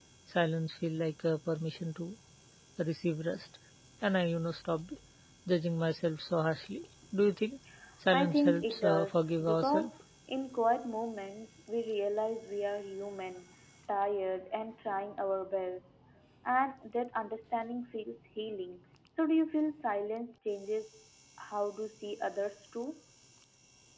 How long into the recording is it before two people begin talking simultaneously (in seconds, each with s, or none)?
8.1 s